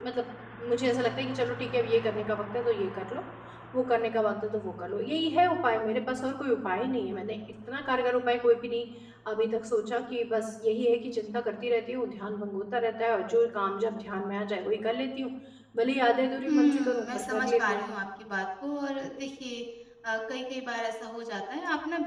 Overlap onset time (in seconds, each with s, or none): 16.5 s